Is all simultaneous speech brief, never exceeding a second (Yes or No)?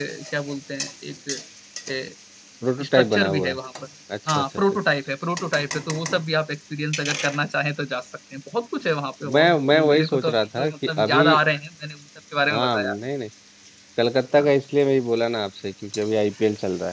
No